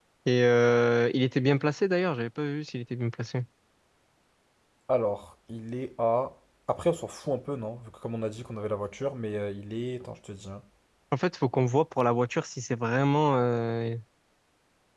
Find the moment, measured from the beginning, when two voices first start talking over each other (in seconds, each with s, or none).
none